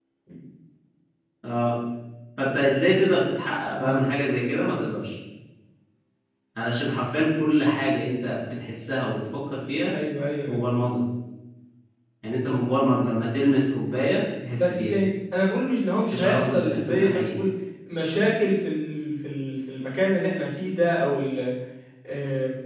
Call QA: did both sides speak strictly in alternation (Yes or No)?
No